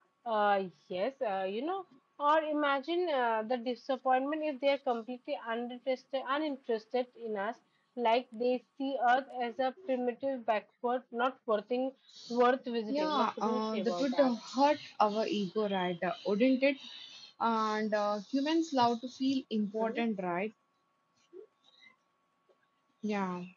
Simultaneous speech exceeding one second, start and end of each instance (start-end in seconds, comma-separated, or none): 12.9-14.3